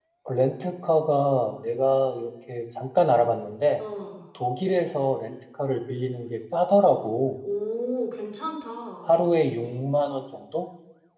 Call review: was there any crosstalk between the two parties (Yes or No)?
No